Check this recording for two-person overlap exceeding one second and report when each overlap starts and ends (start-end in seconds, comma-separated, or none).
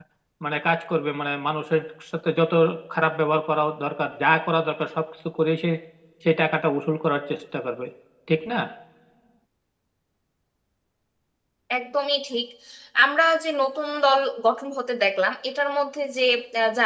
none